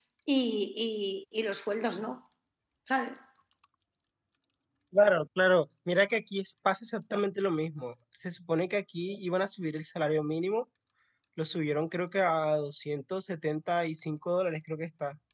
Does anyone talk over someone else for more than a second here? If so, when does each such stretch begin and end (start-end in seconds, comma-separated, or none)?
none